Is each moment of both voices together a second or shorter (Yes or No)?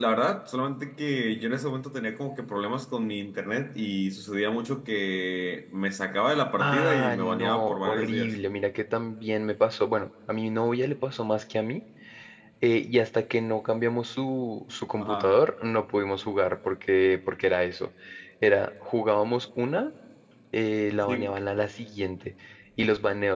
No